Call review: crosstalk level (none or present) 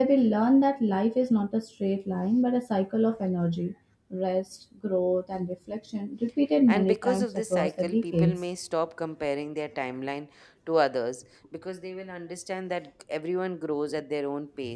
present